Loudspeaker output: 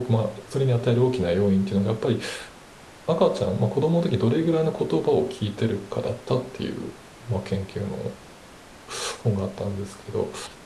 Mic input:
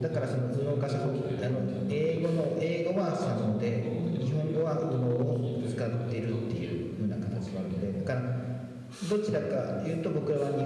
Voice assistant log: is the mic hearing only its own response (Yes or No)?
No